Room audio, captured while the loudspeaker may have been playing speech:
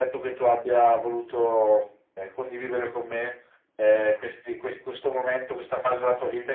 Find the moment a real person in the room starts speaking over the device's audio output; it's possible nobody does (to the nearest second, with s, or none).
none